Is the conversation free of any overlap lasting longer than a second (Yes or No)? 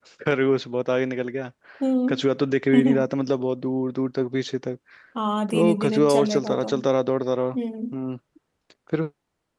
No